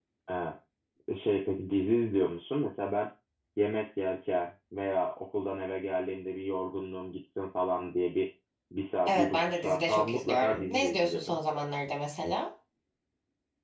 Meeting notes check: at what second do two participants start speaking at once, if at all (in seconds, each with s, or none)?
9.1 s